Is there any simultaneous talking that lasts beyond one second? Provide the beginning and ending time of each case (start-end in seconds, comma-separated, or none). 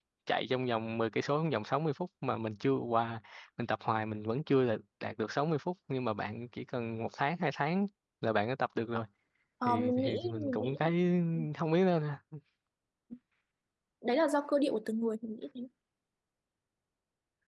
9.6-10.9